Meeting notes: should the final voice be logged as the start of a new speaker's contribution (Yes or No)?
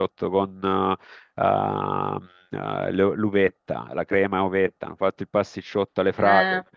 No